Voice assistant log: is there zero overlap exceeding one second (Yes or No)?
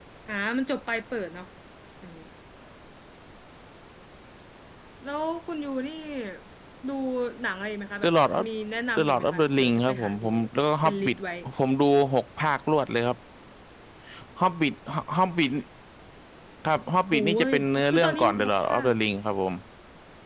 No